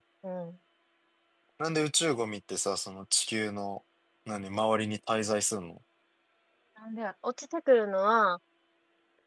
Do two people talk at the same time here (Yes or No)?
No